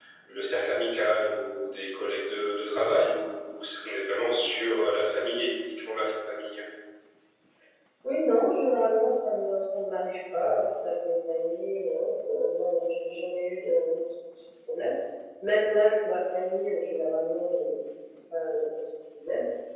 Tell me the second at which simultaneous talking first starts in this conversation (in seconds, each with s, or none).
none